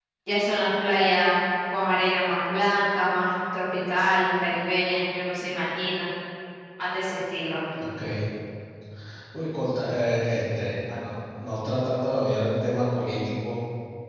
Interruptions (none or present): none